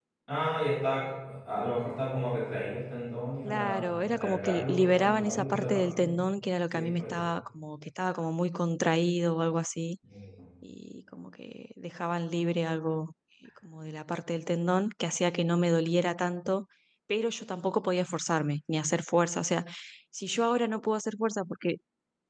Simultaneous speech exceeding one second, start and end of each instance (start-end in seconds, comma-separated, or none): 3.4-6.2